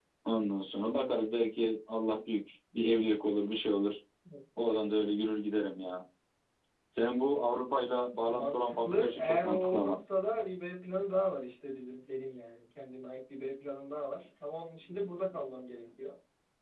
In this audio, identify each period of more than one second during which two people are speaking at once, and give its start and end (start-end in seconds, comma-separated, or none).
8.3-10.0